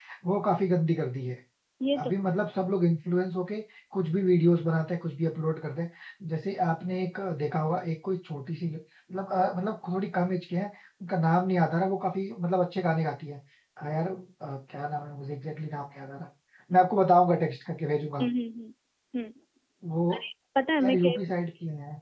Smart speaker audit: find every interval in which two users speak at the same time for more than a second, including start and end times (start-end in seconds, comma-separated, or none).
none